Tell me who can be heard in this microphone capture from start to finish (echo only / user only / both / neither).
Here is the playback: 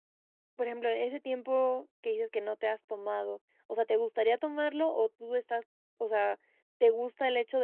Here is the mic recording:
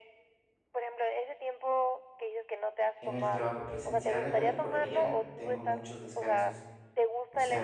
both